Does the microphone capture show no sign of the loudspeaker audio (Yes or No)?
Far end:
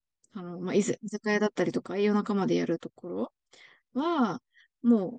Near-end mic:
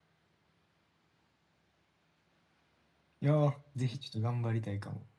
Yes